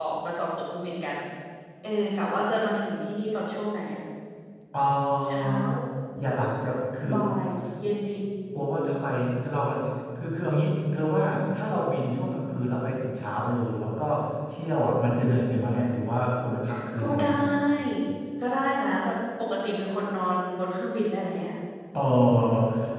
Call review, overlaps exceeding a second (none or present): none